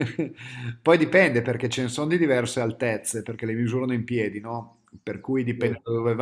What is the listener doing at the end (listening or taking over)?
listening